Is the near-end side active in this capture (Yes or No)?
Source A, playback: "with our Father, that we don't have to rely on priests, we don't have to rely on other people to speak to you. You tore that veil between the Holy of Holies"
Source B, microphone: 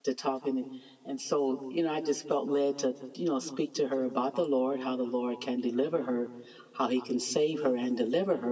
Yes